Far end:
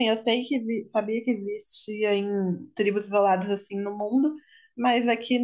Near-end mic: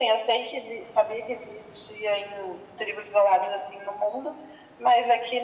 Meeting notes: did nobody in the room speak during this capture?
Yes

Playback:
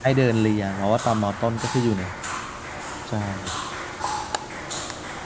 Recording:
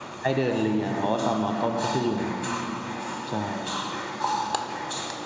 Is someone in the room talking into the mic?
No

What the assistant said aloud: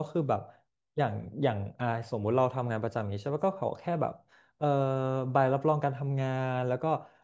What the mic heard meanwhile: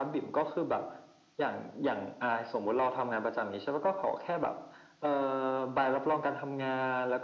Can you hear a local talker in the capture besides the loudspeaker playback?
No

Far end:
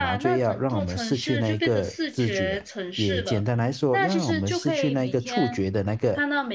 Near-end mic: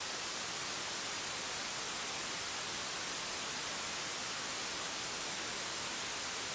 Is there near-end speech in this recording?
No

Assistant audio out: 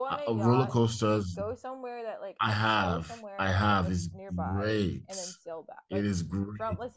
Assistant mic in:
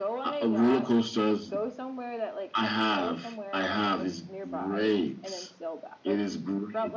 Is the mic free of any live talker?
Yes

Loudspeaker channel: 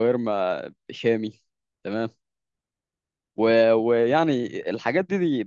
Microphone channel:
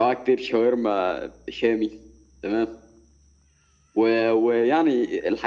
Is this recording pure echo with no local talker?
Yes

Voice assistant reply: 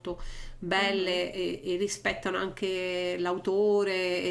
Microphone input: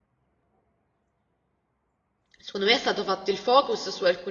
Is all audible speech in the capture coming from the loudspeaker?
No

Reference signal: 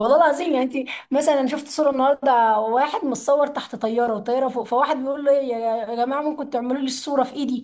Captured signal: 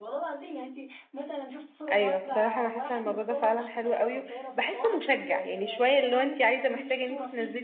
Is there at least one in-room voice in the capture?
Yes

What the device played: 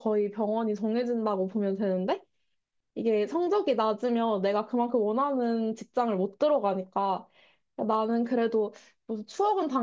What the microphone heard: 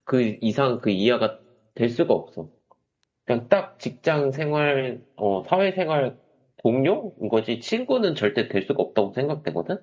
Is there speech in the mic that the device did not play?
Yes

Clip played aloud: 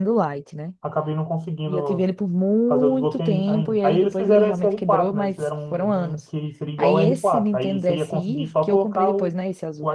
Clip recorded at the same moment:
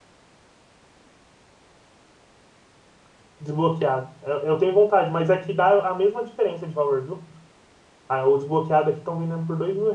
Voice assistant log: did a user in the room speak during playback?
Yes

